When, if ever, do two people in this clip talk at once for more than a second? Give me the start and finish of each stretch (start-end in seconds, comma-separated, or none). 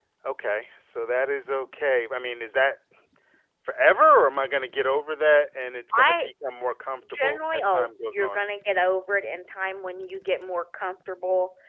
7.1-8.4